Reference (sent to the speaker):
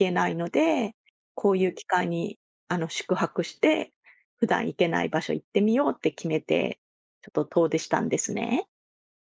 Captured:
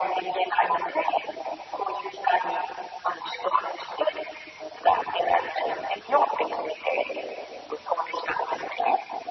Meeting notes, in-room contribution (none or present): none